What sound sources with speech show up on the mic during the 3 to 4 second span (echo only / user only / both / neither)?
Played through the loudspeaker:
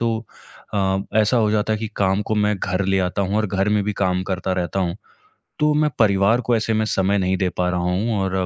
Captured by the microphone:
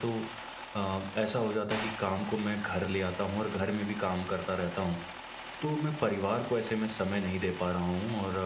echo only